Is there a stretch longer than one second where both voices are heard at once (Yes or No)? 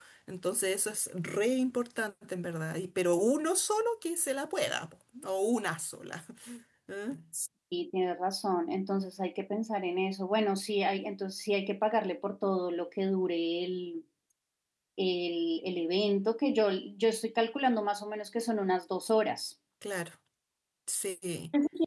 No